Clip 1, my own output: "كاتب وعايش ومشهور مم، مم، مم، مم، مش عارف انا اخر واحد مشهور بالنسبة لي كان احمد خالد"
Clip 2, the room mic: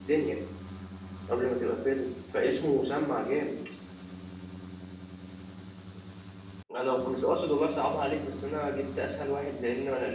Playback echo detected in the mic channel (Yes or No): No